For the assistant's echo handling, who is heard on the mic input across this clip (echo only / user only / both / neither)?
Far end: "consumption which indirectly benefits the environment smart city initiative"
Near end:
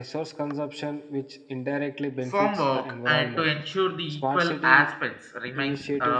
both